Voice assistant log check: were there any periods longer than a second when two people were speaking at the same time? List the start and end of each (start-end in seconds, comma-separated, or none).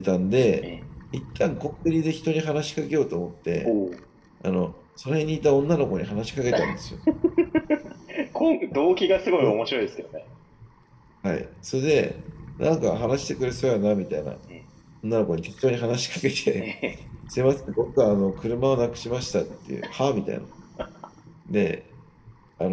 none